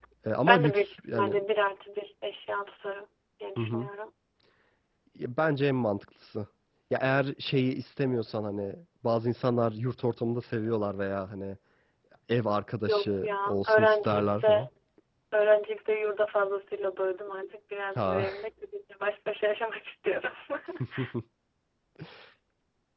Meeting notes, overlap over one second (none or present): present